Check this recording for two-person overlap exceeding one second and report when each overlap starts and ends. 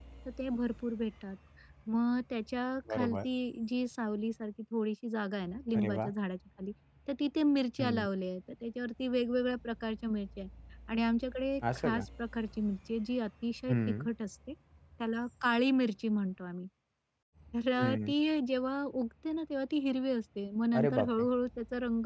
none

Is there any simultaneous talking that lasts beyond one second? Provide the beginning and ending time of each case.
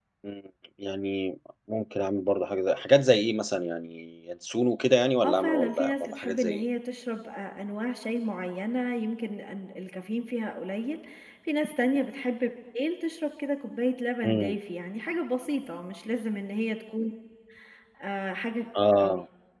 5.2-6.6

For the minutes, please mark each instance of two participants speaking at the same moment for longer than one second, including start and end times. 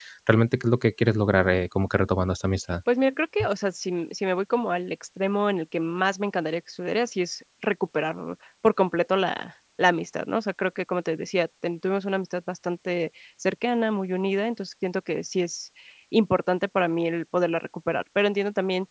none

